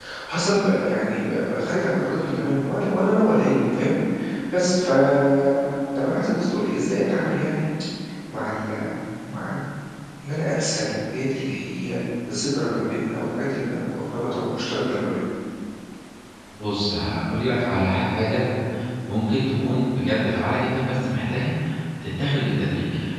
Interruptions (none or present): none